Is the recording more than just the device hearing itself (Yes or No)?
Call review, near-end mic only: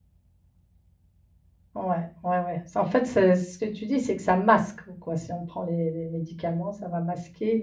Yes